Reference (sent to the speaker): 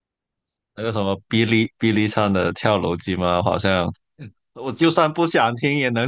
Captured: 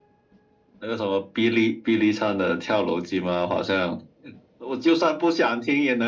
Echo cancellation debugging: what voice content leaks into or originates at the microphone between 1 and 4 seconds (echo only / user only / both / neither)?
echo only